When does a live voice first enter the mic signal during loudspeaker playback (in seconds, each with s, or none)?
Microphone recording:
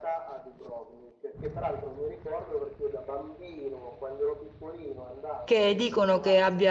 5.5 s